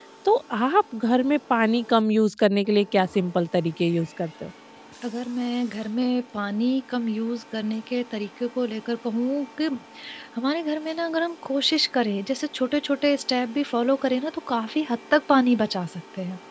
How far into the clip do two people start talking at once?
none

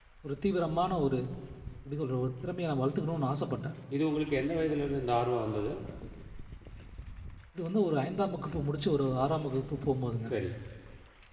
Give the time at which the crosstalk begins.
none

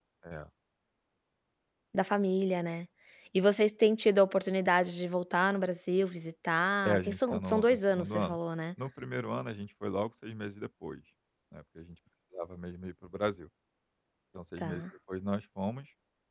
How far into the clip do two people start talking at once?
7 s

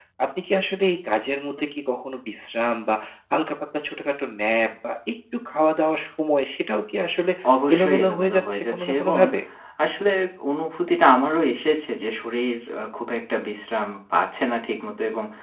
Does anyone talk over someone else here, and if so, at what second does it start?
8 s

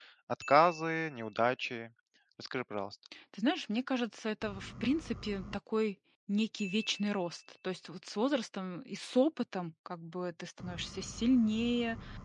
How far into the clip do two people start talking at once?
none

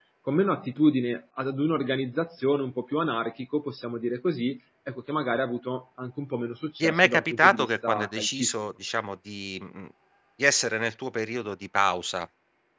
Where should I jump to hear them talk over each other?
7 s

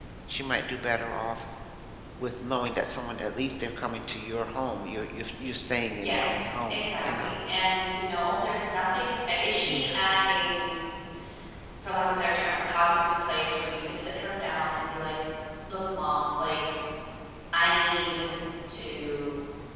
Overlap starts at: 6 s

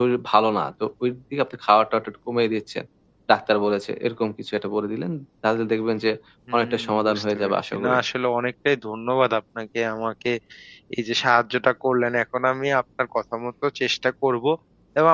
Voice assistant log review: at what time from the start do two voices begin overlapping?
7 s

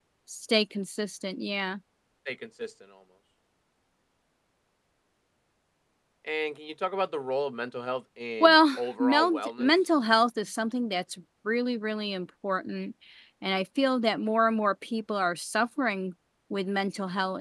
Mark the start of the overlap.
8 s

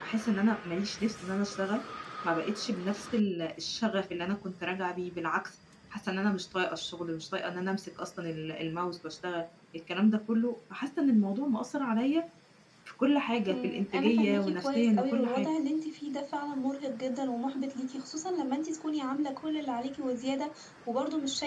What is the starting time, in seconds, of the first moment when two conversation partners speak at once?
13 s

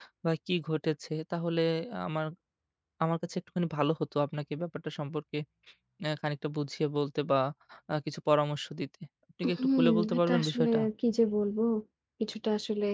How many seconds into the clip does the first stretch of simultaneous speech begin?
9 s

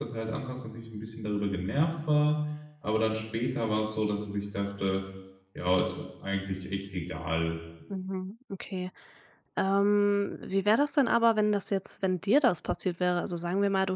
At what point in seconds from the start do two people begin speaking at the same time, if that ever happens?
none

